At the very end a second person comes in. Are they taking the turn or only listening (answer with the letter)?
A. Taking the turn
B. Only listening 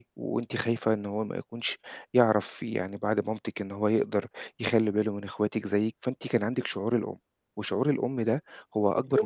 B